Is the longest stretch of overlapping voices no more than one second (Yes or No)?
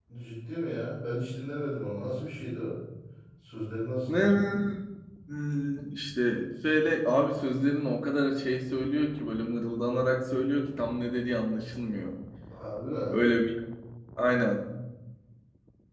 Yes